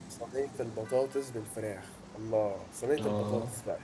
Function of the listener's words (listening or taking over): listening